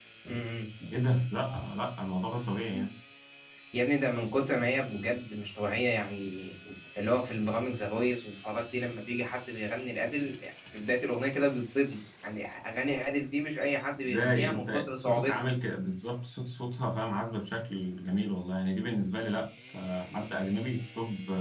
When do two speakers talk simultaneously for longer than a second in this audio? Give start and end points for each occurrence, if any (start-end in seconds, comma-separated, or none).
14.1-15.5